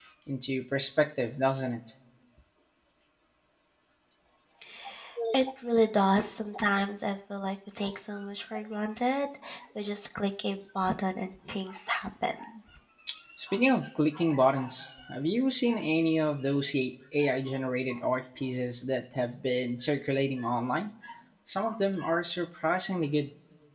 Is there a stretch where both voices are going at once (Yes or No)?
No